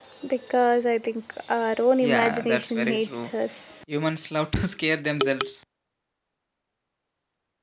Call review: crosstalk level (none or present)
present